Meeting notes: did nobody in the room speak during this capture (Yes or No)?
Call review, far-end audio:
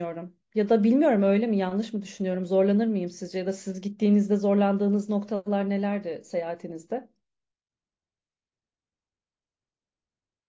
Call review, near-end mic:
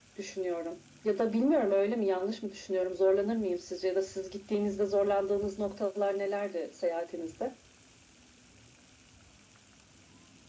Yes